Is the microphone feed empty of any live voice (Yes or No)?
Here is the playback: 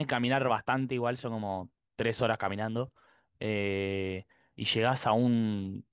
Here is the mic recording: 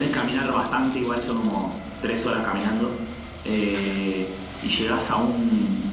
Yes